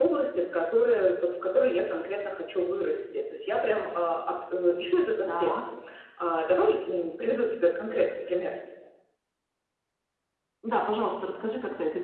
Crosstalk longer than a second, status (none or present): none